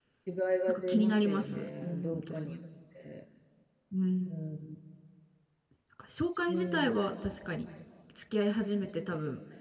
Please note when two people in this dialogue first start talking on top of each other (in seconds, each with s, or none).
0.7 s